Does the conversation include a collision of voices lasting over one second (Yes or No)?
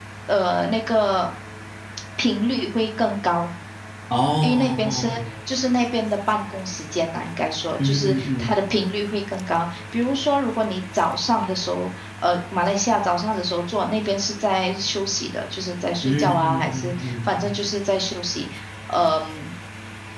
Yes